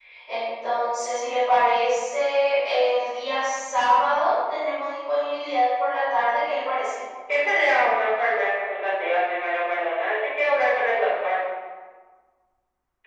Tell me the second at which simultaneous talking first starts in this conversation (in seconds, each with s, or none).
none